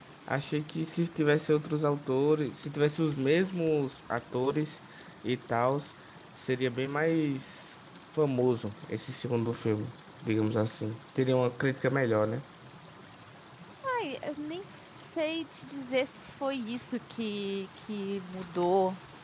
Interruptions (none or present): none